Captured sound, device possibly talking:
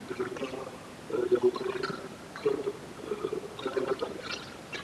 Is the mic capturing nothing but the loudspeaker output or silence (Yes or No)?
Yes